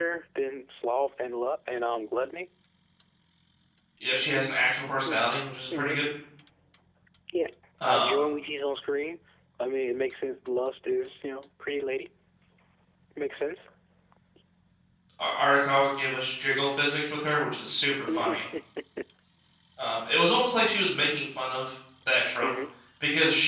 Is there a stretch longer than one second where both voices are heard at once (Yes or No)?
No